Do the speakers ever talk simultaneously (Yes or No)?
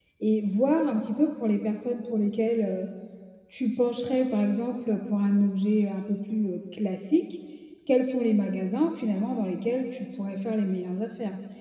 No